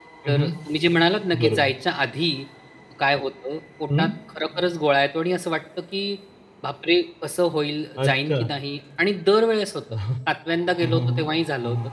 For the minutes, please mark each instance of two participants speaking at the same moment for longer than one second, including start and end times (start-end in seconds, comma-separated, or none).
none